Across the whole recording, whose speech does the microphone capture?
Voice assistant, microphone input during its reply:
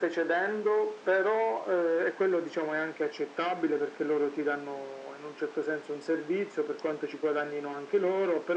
echo only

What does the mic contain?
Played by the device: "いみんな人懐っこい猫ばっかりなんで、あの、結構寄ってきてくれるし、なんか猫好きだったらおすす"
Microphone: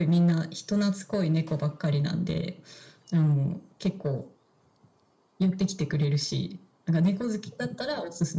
echo only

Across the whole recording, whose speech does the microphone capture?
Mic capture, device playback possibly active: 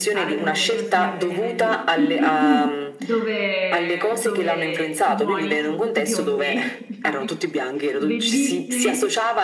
both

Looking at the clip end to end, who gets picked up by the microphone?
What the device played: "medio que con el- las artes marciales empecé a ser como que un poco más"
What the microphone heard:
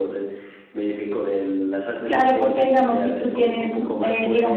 both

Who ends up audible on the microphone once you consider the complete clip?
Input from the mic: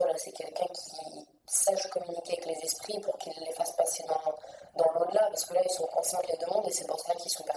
echo only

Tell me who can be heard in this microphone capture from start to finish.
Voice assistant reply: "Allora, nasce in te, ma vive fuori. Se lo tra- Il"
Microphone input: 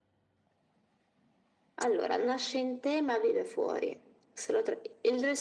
echo only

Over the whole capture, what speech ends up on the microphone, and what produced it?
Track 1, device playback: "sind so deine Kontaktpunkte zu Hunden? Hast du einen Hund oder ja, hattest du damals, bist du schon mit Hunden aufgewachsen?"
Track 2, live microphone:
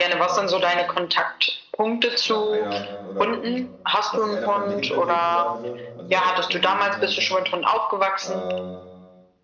both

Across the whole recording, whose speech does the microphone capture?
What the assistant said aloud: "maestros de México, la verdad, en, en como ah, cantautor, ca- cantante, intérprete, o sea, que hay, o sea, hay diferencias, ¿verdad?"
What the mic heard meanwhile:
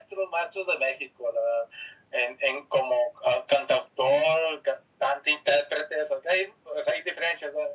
echo only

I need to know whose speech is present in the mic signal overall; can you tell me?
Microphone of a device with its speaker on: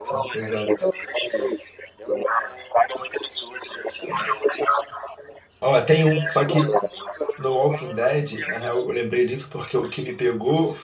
both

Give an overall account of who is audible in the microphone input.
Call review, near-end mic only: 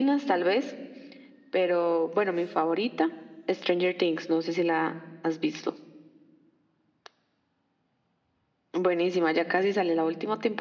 echo only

